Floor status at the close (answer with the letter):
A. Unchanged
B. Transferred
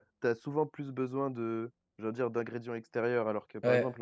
A